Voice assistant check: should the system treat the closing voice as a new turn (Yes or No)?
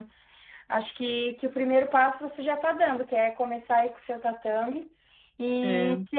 No